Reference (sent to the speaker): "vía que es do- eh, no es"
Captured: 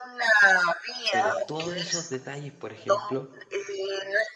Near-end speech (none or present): present